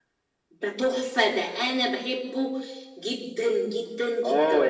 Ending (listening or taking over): taking over